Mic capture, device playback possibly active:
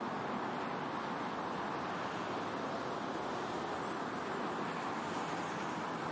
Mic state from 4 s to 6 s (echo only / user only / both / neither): neither